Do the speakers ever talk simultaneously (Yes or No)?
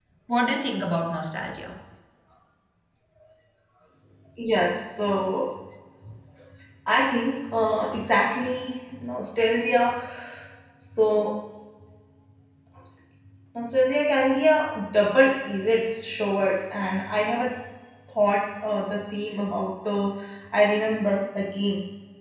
No